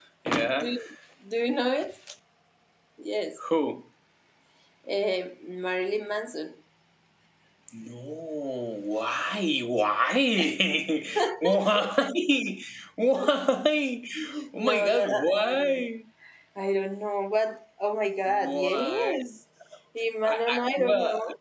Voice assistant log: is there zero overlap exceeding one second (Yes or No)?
No